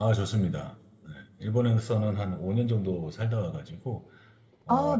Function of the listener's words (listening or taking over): listening